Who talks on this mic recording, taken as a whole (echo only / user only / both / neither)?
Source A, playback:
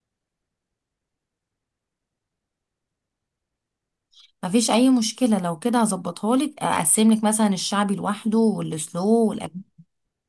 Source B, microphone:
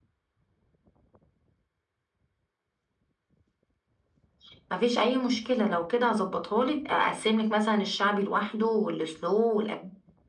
echo only